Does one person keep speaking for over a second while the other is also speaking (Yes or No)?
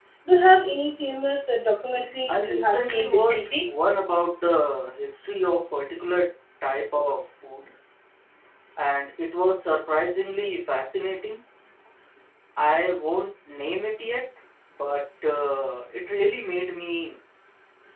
Yes